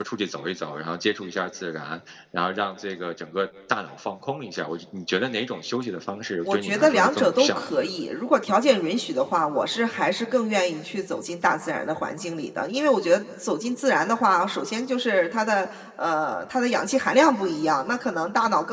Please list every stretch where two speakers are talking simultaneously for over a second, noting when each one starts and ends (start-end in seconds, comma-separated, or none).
6.4-7.9